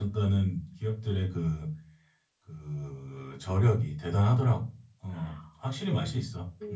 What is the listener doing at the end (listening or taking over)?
taking over